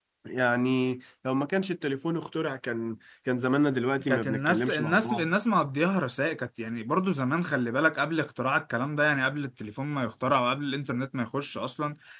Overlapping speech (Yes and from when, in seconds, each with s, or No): Yes, from 4.0 s